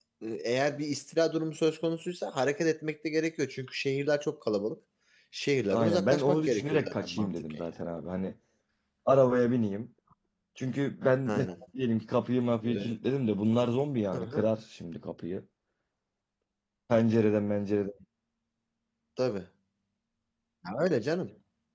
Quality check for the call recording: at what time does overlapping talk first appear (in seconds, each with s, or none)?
5.7 s